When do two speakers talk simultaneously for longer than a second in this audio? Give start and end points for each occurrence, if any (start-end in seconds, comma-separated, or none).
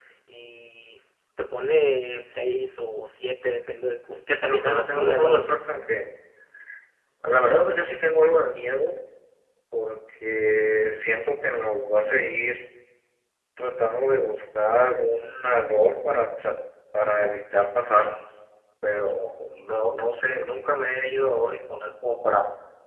4.3-5.6